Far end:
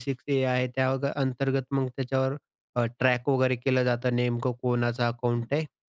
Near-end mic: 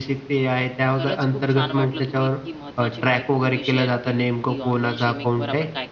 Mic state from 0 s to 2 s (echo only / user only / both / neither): both